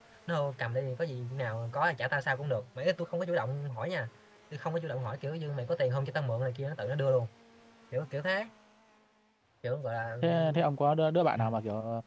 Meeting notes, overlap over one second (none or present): none